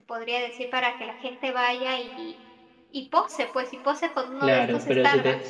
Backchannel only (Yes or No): No